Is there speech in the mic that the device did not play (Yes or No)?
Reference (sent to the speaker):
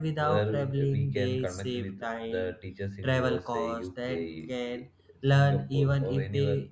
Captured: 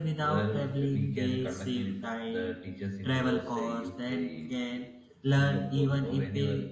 No